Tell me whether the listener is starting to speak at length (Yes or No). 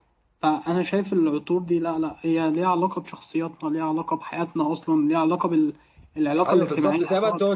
Yes